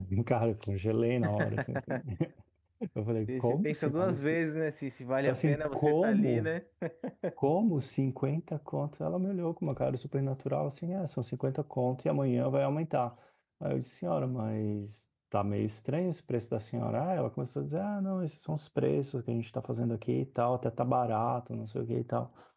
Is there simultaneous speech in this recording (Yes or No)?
Yes